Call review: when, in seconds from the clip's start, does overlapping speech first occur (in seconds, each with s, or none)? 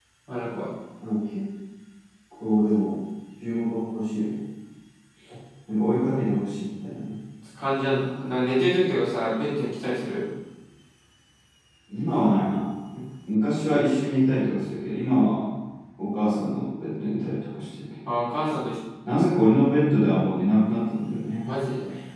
none